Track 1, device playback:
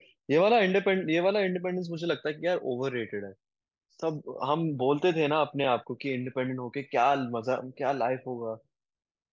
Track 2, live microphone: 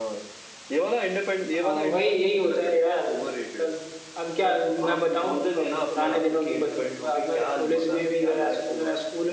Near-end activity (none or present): present